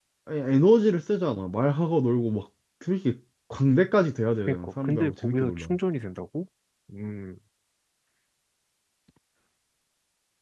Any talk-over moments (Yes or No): Yes